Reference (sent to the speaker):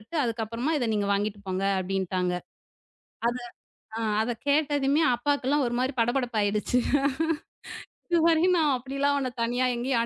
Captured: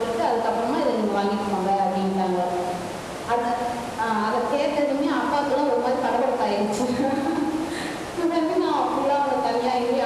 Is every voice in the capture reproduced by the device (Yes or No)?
Yes